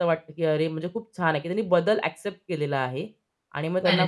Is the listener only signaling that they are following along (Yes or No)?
Yes